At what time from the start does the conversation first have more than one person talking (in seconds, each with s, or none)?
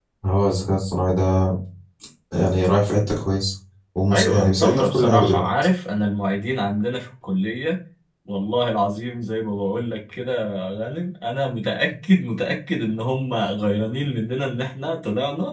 4.1 s